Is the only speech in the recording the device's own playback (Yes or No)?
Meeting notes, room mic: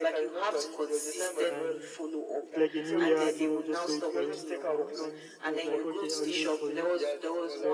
No